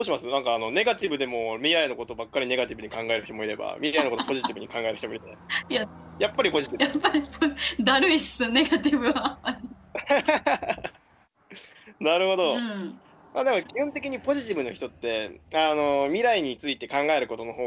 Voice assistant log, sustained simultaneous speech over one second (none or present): none